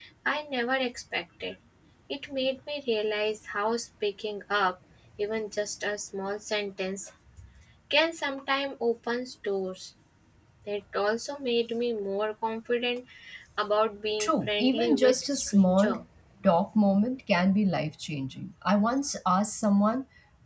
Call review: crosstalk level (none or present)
present